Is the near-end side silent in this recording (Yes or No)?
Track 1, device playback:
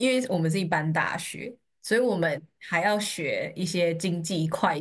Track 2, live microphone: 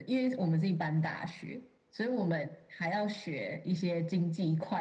Yes